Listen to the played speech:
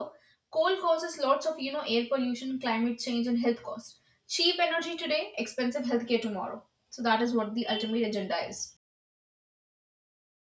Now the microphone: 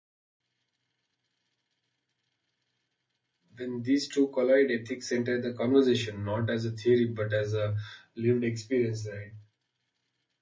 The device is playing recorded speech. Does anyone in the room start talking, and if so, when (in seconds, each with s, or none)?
3.6 s